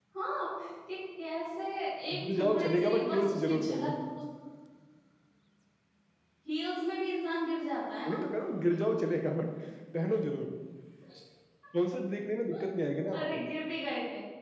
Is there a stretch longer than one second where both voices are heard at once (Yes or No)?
Yes